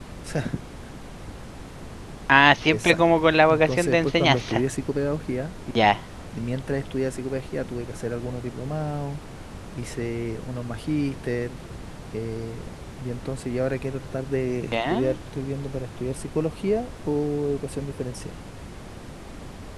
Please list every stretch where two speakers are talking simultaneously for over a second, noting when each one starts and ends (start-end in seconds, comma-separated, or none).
2.7-4.6